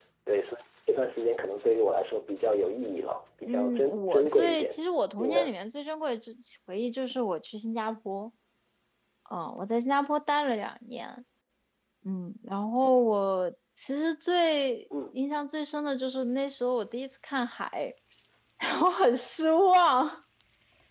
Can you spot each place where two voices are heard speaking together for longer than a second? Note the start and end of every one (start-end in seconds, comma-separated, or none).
3.5-4.7